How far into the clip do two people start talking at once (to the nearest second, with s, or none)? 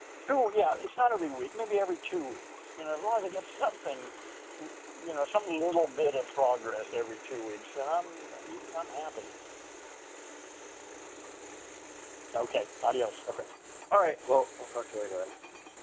none